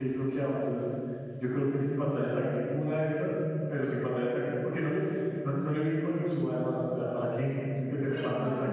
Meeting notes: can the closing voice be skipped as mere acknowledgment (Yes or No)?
No